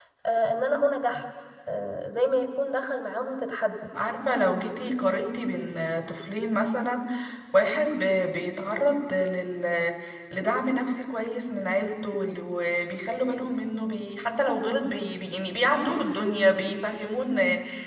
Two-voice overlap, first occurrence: none

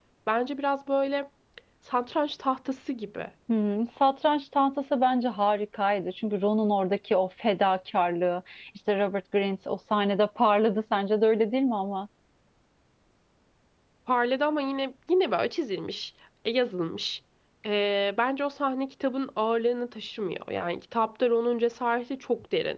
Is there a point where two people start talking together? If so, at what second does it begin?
none

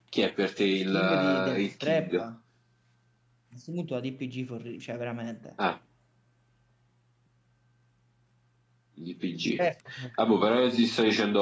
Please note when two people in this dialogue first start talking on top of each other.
0.6 s

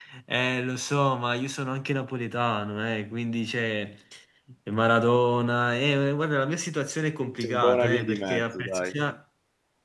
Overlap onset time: 7.2 s

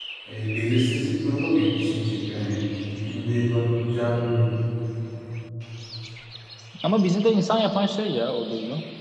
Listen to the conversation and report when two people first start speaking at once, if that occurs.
none

